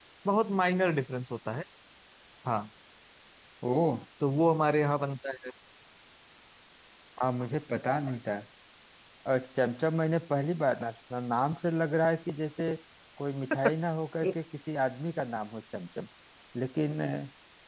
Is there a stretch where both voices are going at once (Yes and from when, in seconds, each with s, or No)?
No